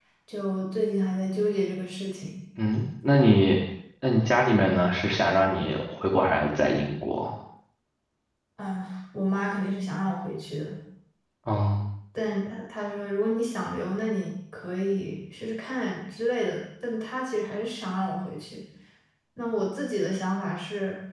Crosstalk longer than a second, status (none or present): none